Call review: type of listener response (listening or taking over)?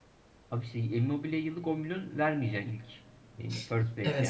taking over